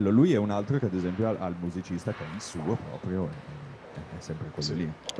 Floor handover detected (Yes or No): No